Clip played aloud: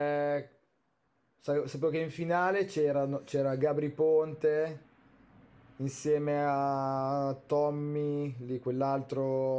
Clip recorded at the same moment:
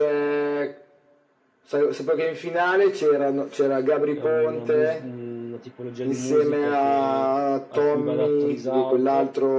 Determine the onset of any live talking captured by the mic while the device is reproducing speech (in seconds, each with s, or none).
4.2 s